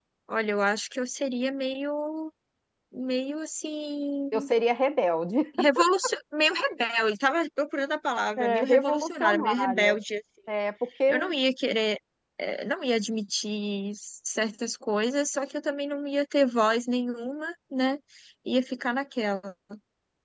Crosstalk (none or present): present